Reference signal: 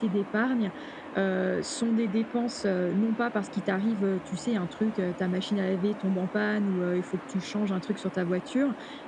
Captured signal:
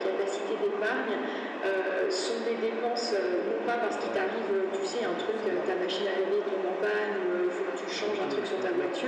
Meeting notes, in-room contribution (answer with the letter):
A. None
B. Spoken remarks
B